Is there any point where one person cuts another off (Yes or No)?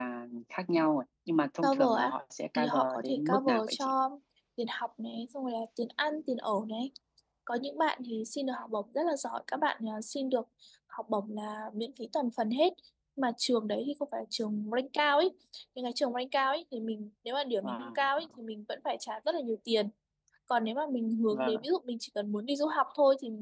Yes